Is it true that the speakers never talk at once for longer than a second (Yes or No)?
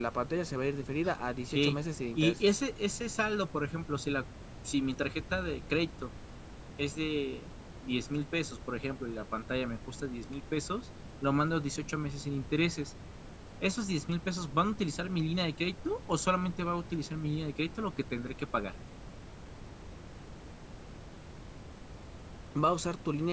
Yes